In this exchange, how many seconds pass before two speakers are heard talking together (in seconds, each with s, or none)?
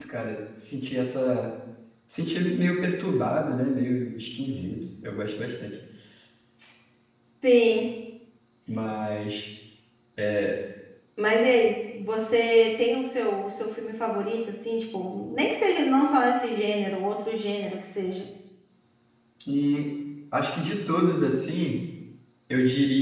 none